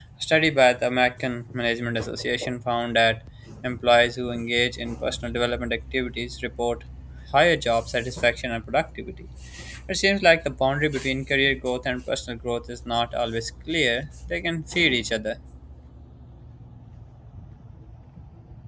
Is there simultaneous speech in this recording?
No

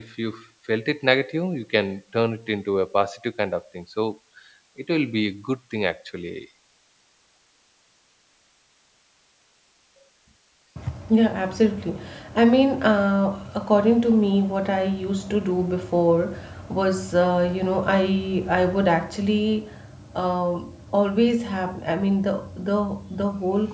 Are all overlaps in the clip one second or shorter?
Yes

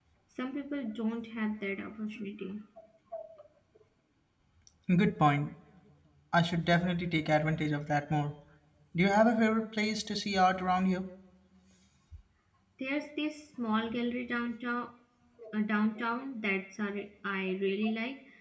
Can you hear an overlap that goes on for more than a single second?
No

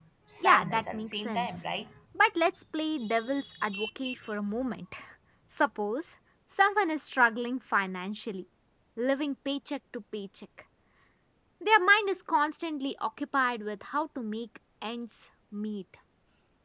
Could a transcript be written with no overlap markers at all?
No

